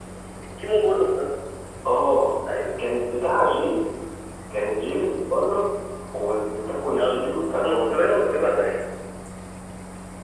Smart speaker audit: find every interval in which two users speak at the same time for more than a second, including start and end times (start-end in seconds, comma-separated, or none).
7.0-8.8